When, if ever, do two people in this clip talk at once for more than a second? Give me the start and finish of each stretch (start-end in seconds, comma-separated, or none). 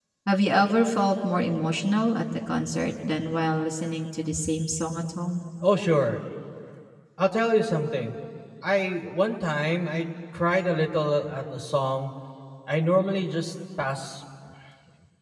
none